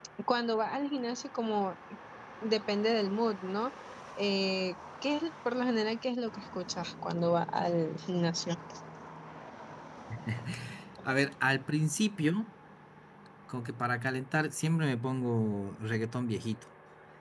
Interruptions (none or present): none